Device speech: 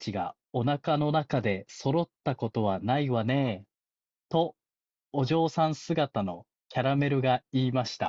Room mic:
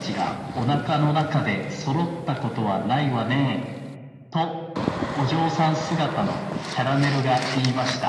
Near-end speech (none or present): none